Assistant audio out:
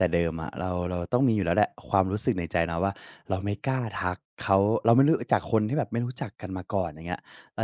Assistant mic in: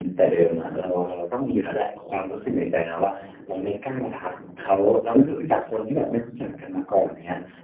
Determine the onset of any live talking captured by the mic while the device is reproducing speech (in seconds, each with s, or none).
none